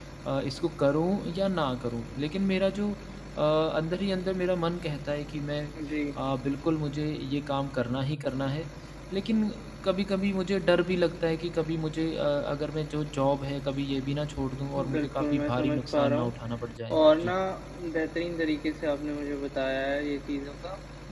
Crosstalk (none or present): present